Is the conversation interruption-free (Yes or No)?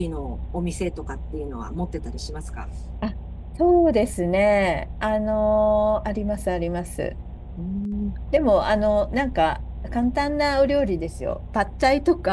Yes